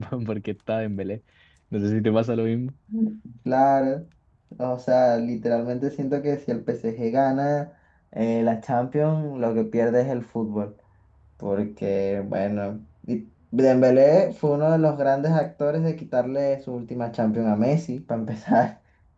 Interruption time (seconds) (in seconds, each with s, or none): none